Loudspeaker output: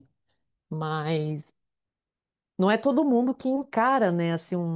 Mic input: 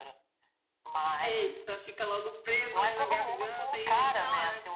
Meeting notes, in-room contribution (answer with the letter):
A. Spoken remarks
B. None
A